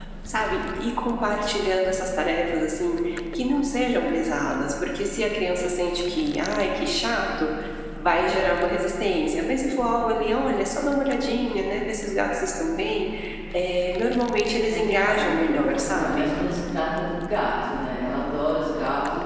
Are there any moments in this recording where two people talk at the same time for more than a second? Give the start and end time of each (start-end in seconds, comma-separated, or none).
14.7-16.3